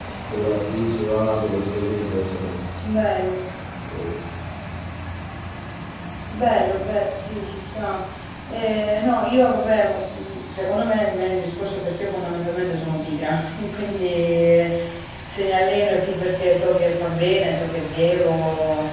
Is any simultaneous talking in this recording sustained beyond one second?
No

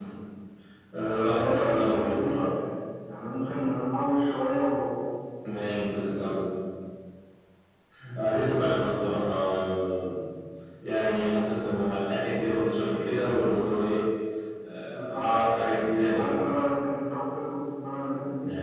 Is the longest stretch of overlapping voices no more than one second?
No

